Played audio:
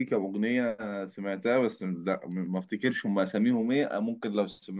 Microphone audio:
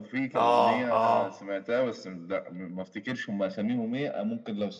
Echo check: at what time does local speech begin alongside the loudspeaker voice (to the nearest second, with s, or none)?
0 s